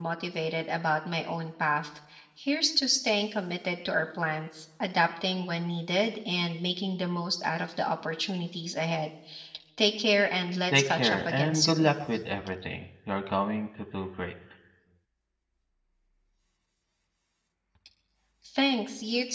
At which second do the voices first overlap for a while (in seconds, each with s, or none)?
10.7 s